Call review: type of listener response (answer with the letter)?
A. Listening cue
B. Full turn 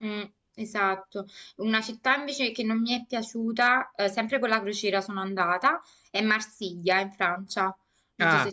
B